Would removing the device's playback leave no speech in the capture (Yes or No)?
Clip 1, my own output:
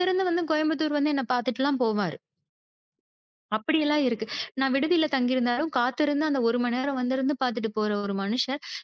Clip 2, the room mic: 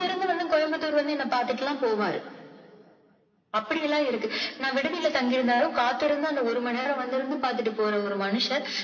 Yes